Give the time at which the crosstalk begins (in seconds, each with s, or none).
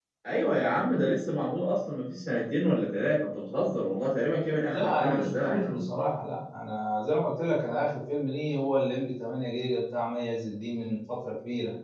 4.6 s